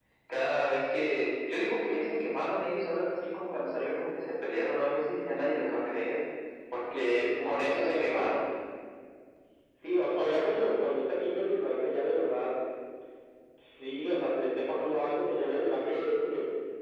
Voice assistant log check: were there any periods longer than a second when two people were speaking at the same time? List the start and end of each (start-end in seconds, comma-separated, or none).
7.0-8.3